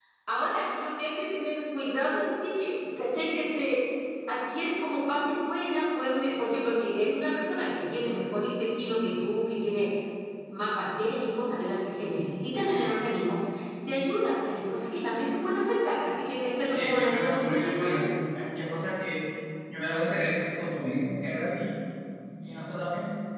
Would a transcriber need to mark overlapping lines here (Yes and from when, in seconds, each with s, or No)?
Yes, from 16.6 s